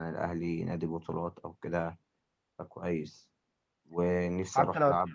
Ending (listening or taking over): listening